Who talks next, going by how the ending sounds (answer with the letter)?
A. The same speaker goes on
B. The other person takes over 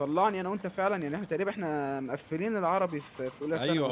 B